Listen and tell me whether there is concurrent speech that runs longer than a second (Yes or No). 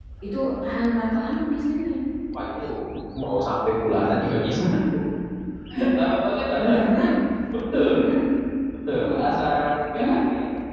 No